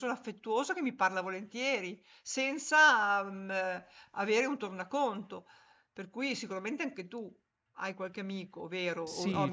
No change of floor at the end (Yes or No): No